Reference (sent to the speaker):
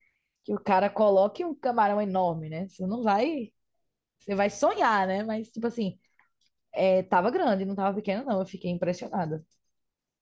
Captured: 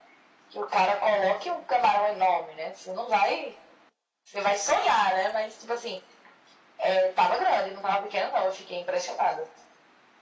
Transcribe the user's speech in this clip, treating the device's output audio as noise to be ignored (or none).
none